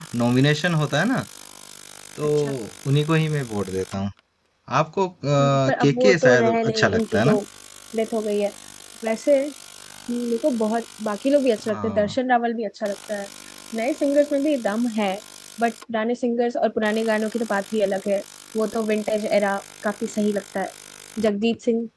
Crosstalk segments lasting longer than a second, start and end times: 5.4-7.4

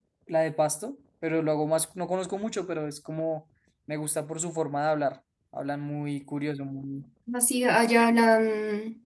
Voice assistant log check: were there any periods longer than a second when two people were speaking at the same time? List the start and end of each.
none

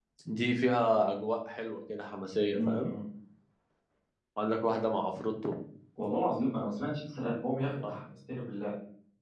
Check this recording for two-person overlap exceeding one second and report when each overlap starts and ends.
none

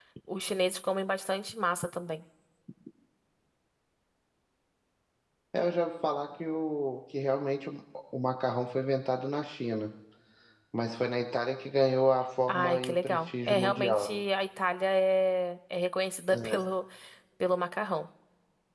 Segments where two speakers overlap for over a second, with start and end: 12.5-14.2

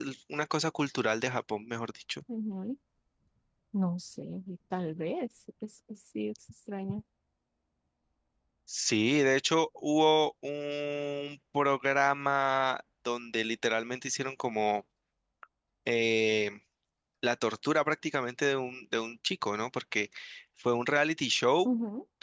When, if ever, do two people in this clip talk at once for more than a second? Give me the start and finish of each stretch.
none

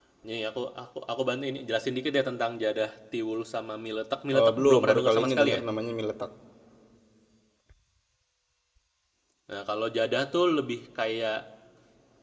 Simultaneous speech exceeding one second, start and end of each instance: 4.4-5.6

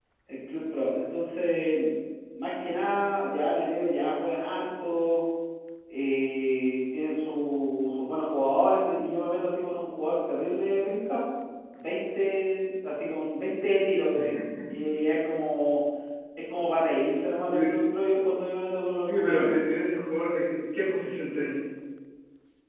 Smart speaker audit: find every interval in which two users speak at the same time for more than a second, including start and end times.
none

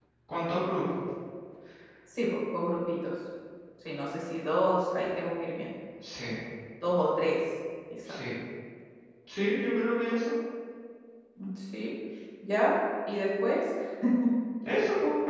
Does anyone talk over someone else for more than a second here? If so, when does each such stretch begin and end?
none

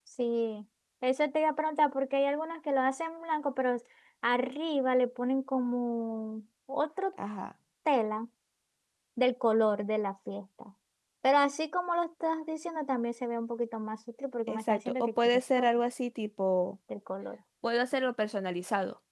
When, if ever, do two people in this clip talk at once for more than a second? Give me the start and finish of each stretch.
14.5-15.7

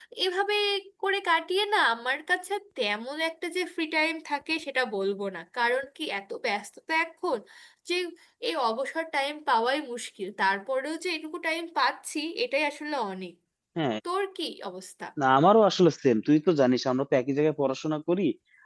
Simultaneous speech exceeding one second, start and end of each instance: none

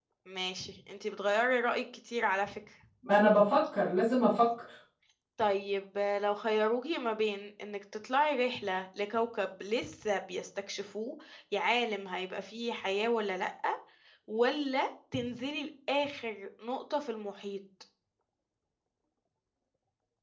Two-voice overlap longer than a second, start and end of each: none

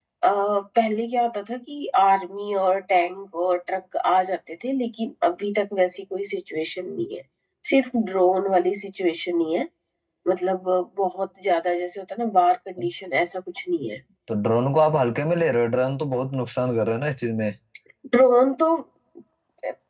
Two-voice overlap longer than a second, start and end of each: none

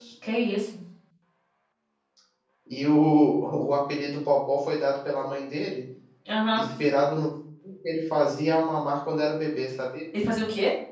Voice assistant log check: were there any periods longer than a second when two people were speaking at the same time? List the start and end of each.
none

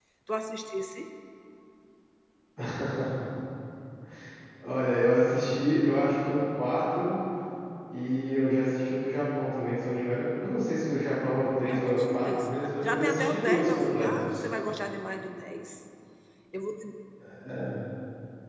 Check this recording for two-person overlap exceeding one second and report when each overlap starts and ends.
11.7-14.4

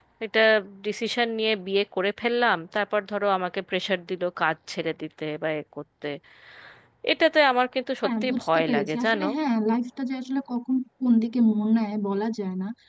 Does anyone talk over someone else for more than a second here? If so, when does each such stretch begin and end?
8.0-9.2

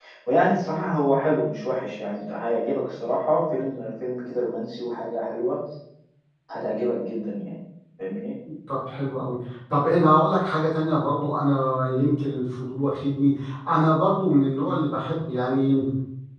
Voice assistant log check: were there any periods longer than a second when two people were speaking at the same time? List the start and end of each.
none

